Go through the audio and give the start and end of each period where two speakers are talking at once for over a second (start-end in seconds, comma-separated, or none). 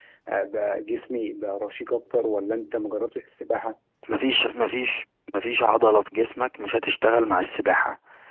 none